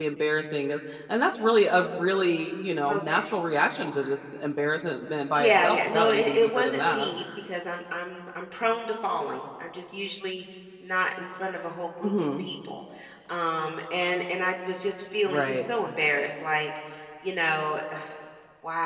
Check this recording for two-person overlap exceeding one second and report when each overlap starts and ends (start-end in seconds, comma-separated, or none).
5.3-7.1